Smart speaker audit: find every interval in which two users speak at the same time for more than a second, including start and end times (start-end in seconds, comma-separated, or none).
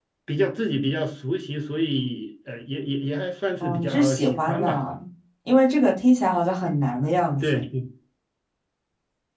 3.6-4.8